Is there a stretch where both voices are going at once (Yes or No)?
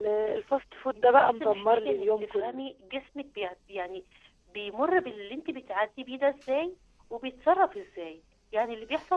Yes